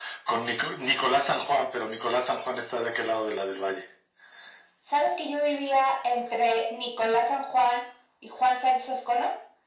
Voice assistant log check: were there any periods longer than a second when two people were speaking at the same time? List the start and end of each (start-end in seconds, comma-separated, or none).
none